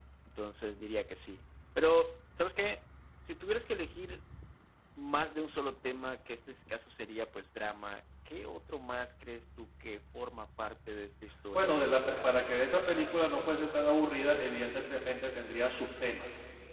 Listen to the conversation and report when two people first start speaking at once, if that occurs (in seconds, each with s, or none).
11.5 s